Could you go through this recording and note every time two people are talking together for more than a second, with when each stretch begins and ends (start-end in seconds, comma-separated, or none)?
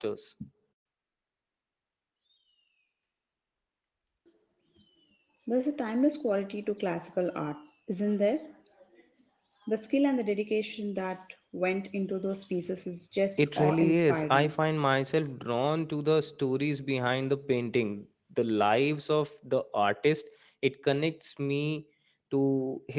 13.4-14.6